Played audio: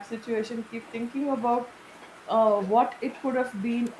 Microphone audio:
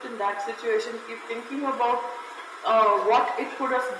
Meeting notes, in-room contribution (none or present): none